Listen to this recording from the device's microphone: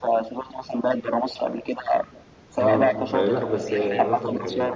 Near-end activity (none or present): present